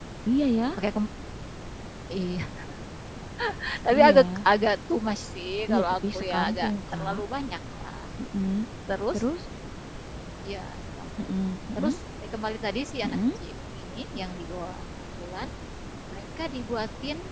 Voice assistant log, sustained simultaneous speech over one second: present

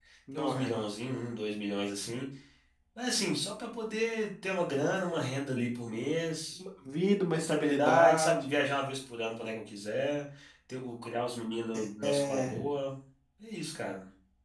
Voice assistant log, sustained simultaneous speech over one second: present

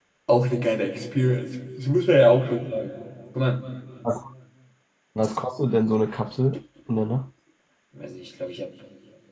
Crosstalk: none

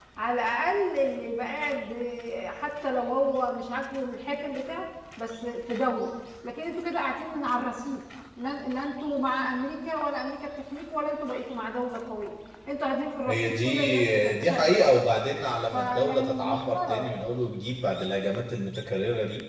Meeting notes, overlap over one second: present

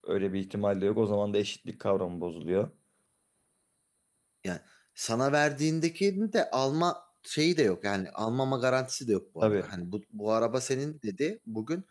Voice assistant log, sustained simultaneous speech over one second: none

